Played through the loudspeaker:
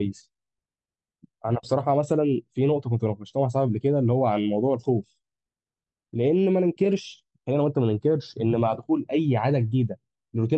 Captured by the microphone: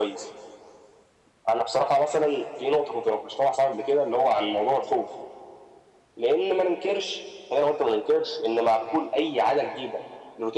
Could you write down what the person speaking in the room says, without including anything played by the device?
none

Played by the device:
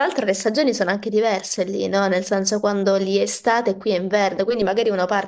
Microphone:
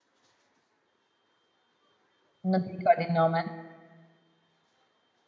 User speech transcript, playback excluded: Non ti ricordi il nome?

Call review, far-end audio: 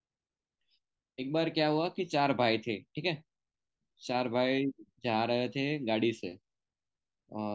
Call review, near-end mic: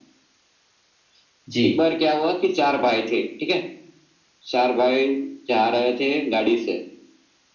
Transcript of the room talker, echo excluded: जी

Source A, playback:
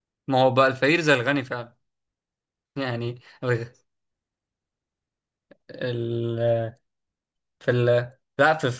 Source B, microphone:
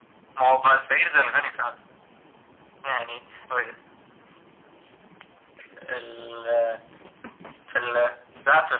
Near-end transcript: none

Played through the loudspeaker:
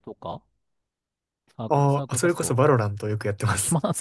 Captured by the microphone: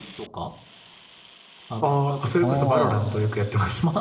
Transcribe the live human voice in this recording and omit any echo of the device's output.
あ

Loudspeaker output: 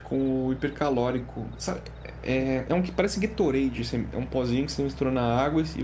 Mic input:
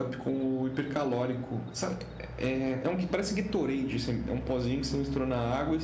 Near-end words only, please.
none

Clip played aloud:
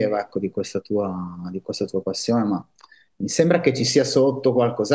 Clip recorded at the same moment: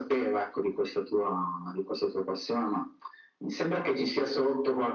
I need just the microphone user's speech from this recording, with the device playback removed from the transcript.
none

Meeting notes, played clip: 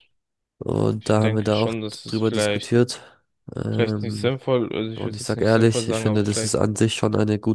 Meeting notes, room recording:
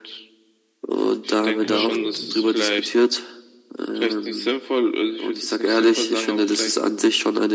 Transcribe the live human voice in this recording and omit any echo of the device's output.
Äh,

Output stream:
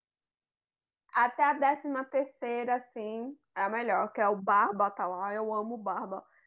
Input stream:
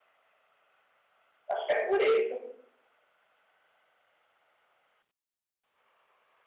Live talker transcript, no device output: Acho que é por isso.

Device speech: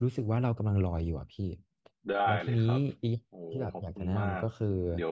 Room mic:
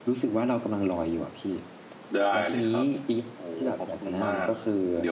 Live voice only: none

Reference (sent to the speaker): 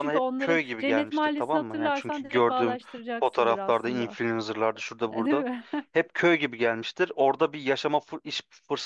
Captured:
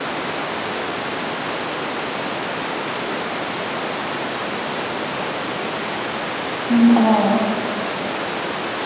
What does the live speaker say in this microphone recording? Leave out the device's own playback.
Hmm. Aa.

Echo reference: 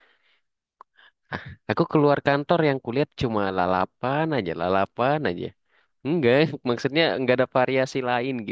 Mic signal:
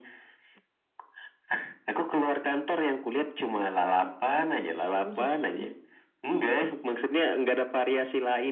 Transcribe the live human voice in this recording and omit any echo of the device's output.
Oh, jadi

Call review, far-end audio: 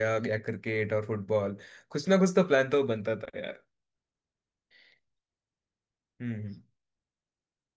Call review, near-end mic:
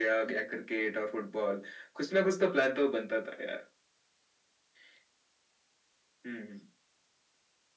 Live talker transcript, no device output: none

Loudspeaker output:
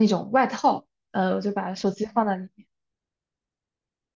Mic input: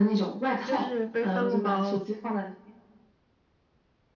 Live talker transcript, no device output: 就是背帆布包，

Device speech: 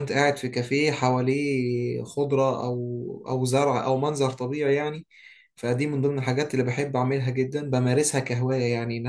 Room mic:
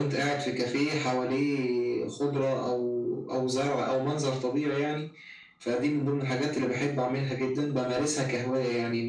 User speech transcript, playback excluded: none

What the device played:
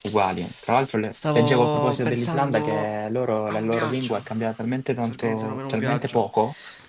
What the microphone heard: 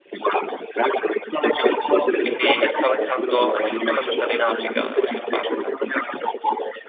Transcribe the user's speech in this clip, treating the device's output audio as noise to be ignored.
Quindi stavo pensando addirittura se andare in Africa da qualche parte.

